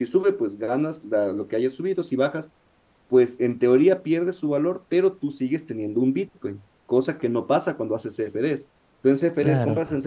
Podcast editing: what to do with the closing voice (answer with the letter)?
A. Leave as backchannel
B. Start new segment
A